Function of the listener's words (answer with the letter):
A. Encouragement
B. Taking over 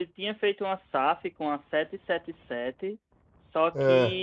A